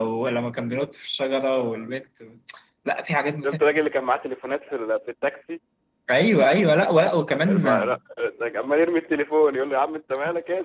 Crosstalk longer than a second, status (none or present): none